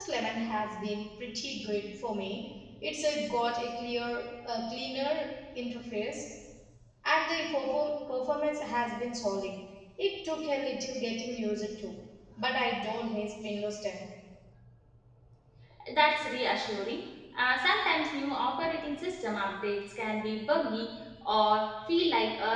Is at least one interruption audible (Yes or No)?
No